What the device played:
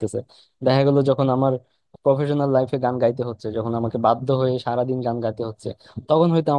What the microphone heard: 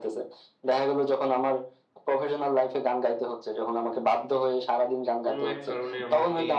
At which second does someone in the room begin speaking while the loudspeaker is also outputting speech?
5 s

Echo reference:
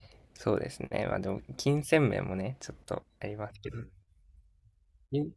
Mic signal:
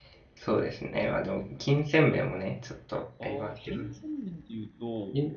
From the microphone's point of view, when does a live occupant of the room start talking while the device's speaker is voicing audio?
3 s

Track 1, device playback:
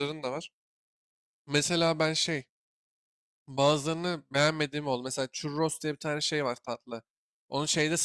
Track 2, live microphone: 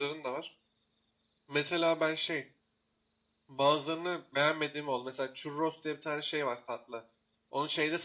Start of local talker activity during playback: none

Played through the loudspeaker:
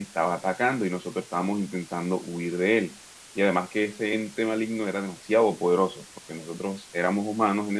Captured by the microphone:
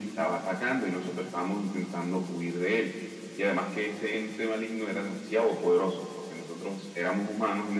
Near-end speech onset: none

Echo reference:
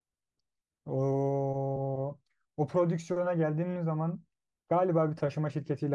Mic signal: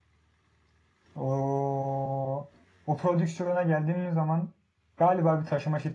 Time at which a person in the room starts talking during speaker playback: none

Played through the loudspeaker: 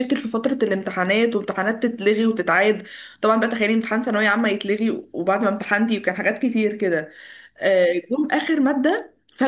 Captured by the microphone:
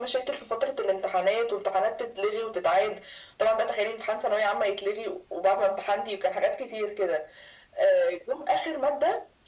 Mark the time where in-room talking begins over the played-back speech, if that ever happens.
none

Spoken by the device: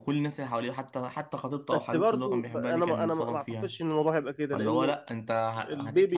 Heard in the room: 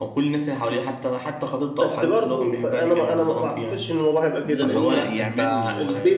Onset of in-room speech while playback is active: 4 s

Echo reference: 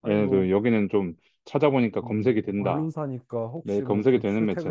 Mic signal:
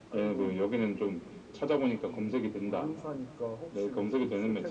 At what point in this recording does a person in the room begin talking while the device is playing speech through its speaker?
none

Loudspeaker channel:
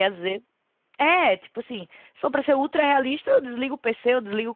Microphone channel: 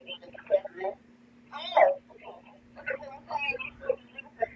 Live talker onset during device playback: none

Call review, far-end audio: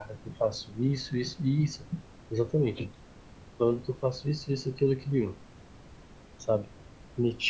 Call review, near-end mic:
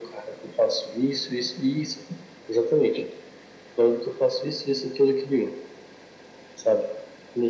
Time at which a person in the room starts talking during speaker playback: none

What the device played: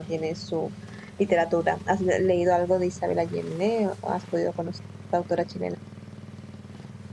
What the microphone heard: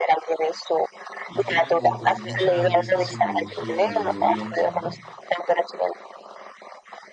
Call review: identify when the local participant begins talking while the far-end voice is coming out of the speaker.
1 s

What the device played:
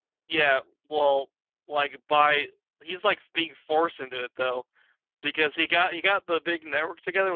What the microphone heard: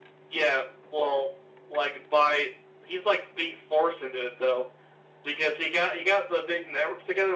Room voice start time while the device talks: none

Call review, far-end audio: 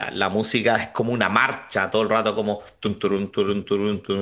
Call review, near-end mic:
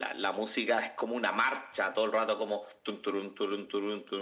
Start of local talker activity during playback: none

